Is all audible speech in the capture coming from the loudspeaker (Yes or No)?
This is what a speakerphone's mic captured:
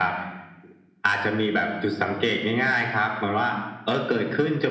Yes